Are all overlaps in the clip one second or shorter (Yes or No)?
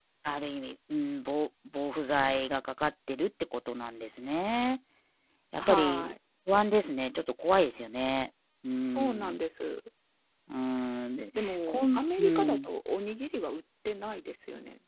No